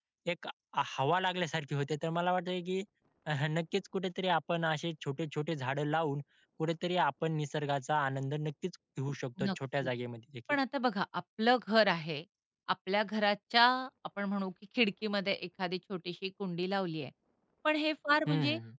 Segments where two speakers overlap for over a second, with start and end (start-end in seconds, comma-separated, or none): none